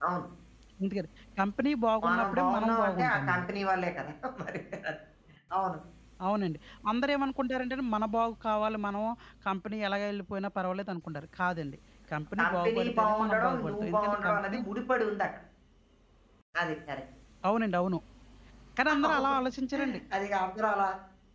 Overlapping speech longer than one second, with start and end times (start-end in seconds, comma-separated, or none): 2.0-3.5, 12.4-14.6